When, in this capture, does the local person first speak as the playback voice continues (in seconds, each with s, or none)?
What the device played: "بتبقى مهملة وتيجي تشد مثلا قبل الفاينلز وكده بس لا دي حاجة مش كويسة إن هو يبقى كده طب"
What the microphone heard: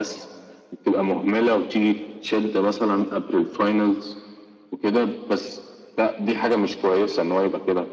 none